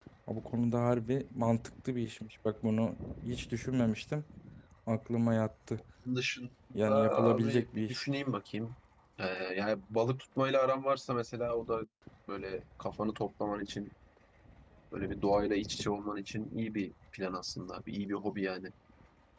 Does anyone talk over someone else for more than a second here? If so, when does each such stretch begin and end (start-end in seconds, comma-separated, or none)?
6.7-8.0